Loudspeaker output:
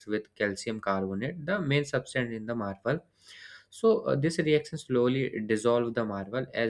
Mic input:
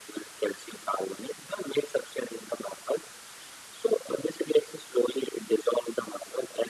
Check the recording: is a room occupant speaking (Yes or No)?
No